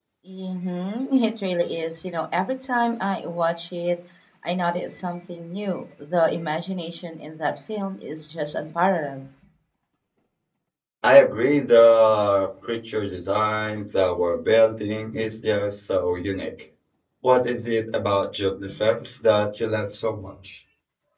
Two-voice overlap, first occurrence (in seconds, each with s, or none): none